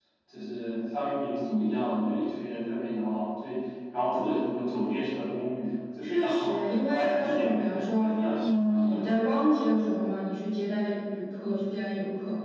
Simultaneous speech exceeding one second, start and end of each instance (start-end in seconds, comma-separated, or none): 6.0-9.0